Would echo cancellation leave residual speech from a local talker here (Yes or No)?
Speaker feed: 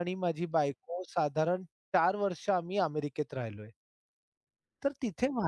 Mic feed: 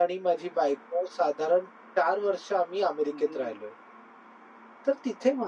Yes